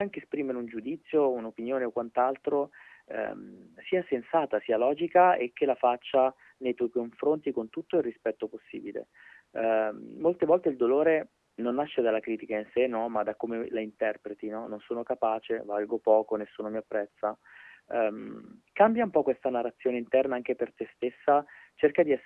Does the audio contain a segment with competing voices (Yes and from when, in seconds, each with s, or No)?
No